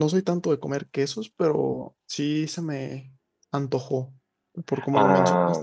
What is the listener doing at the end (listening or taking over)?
taking over